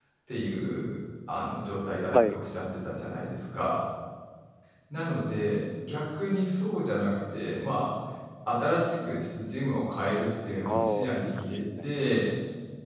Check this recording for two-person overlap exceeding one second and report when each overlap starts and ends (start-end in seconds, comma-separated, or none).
10.7-12.2